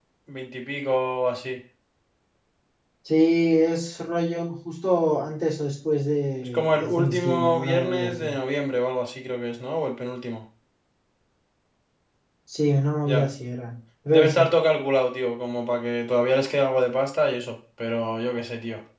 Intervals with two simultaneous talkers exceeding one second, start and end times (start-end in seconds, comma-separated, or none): 6.5-8.3